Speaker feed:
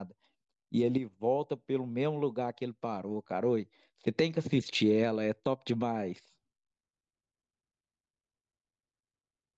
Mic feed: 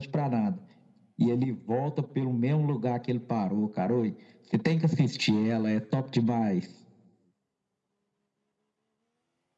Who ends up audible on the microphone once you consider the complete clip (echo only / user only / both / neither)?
echo only